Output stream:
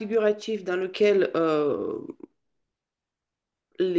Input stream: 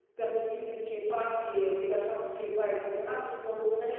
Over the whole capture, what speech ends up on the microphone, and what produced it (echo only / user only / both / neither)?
user only